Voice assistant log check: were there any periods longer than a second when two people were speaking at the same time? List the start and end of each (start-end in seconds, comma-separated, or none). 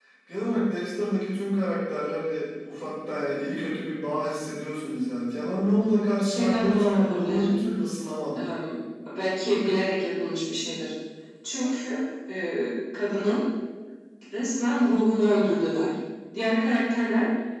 6.2-7.5